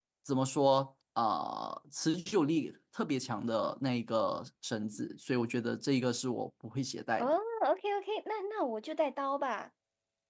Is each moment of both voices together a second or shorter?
Yes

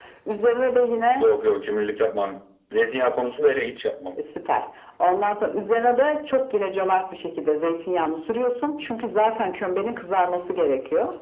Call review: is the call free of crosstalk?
Yes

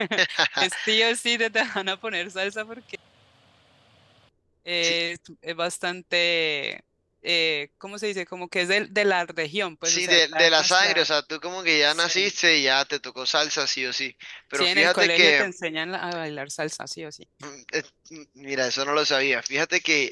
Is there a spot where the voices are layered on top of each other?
Yes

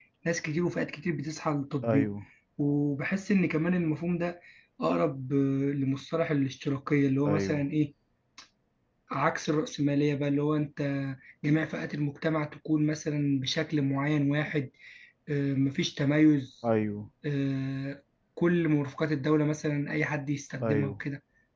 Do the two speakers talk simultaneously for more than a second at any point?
No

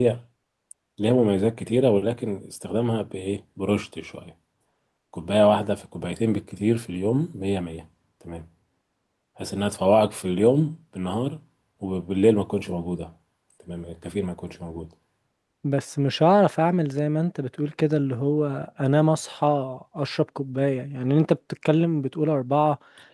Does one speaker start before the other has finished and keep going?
No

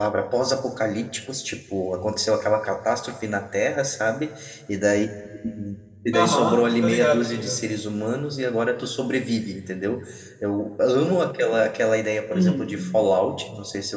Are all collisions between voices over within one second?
No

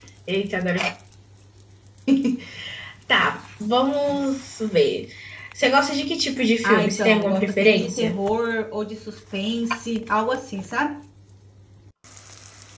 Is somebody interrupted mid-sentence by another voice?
Yes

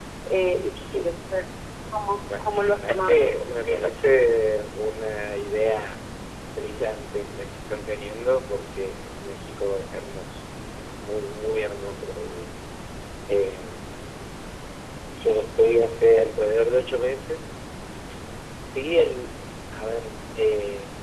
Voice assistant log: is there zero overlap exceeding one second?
No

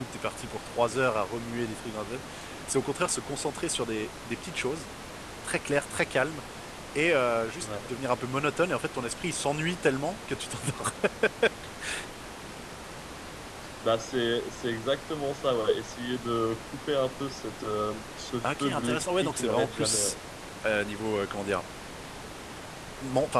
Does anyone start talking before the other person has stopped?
Yes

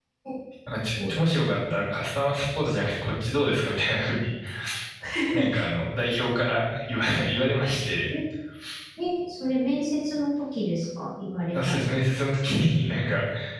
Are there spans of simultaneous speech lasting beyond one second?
No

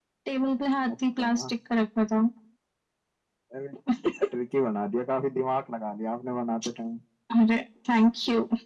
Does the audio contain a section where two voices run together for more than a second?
No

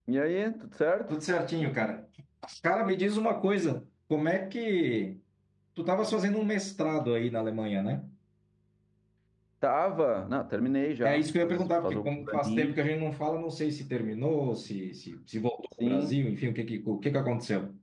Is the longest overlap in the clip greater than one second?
Yes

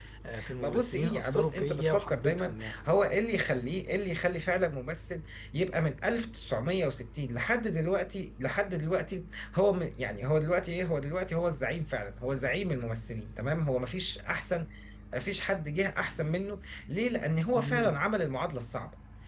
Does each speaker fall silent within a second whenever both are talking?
No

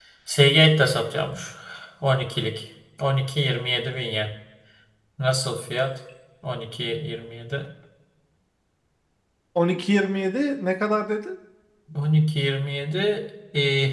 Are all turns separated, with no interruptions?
Yes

